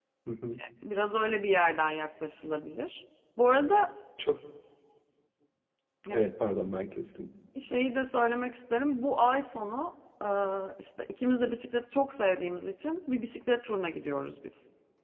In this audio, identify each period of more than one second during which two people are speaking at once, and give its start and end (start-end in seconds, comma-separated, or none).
none